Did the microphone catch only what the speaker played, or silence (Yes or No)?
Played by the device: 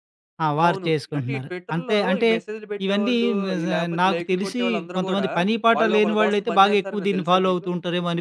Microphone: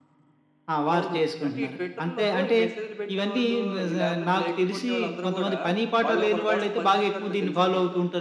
Yes